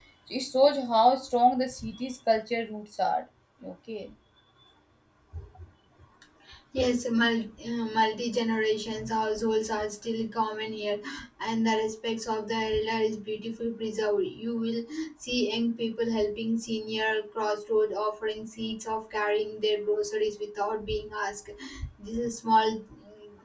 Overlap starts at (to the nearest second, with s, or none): none